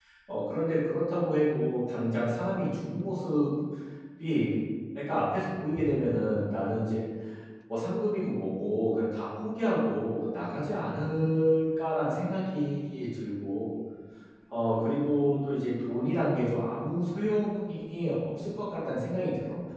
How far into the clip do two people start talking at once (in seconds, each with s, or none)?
none